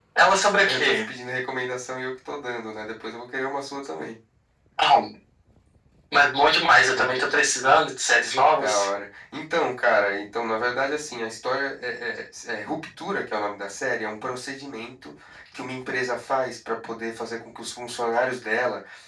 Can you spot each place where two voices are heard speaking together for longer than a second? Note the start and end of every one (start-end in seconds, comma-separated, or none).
none